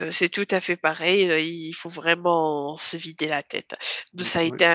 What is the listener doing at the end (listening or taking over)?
listening